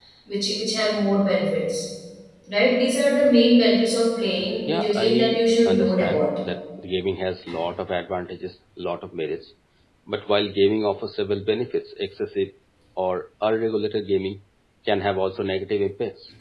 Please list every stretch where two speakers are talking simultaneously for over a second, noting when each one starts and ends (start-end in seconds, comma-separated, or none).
4.7-6.3